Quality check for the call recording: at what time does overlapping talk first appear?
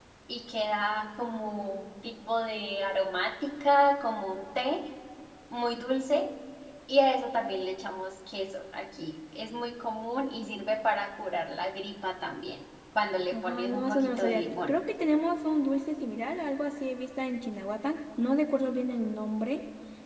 13 s

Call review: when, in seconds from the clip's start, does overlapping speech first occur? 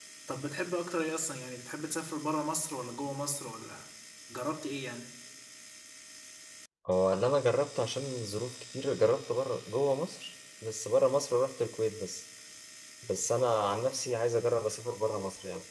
none

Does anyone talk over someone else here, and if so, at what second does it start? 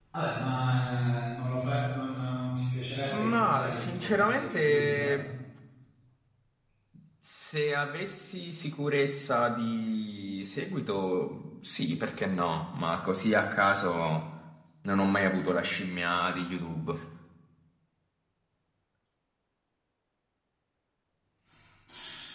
3 s

